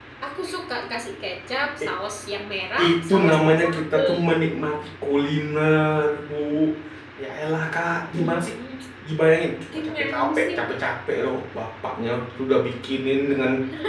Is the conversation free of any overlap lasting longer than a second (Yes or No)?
No